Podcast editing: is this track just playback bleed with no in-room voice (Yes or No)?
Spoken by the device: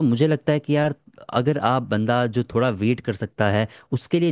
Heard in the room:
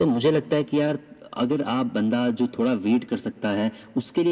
Yes